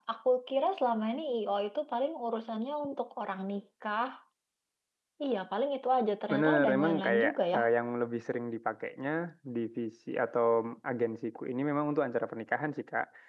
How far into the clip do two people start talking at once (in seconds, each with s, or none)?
6.3 s